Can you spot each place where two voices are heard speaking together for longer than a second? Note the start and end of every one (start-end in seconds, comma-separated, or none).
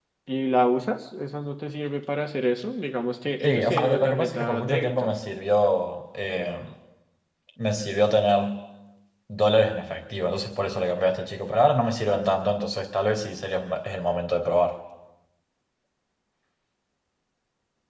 3.4-5.2